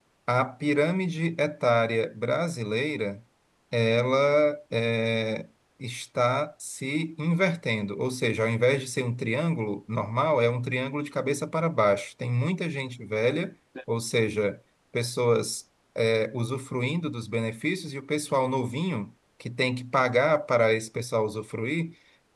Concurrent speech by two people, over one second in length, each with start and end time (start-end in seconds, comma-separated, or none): none